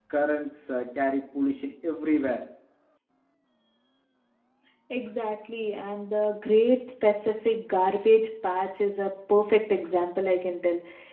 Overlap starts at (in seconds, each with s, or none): none